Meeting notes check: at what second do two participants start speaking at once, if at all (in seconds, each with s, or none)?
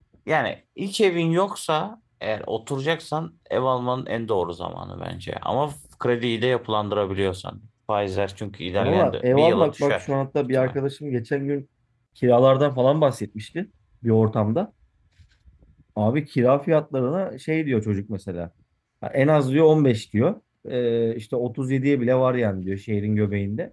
8.8 s